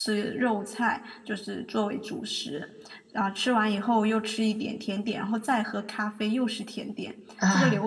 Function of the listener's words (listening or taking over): listening